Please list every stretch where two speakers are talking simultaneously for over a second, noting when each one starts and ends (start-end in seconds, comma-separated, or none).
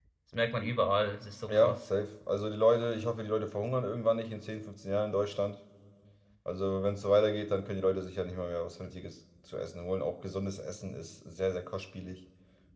none